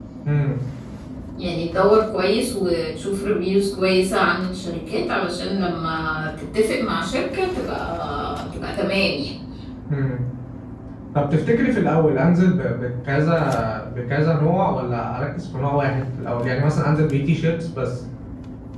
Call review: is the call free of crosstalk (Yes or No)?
Yes